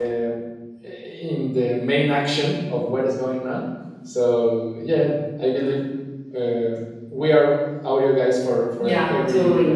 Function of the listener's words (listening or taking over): taking over